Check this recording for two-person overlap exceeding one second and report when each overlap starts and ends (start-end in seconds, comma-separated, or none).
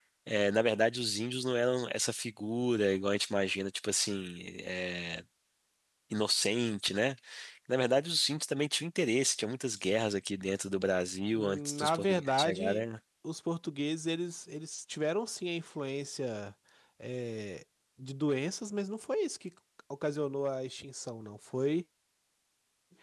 11.3-12.8